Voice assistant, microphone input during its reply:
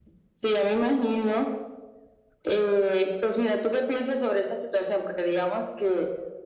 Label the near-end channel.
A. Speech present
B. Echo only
B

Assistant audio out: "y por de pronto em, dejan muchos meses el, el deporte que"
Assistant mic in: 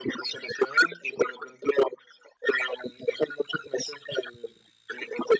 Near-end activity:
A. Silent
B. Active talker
A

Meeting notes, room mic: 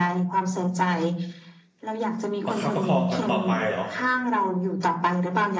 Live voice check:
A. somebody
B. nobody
A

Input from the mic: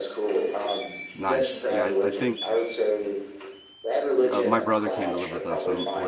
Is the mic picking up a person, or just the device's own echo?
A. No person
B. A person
B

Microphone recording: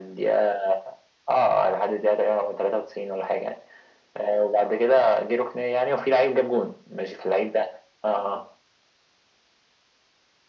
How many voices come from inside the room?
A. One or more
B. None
B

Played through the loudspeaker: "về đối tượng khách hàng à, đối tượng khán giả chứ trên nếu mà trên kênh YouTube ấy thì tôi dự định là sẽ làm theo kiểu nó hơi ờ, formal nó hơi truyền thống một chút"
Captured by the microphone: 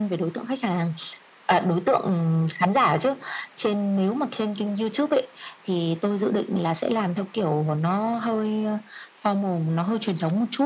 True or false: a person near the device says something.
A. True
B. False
B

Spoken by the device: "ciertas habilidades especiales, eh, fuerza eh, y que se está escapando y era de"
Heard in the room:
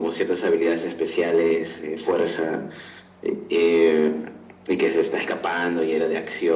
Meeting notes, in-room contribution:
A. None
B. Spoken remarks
A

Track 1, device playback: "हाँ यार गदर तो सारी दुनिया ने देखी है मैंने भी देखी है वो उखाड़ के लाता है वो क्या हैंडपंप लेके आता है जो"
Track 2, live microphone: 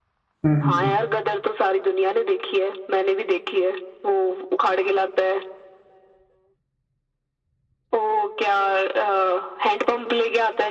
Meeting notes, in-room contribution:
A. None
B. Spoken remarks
B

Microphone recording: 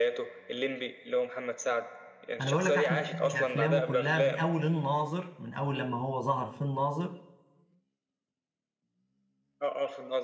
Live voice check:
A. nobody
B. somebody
B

